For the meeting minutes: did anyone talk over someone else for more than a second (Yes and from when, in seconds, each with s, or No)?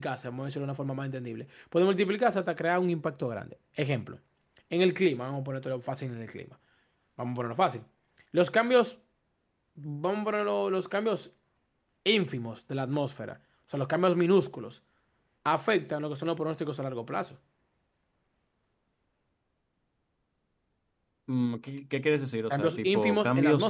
Yes, from 22.5 s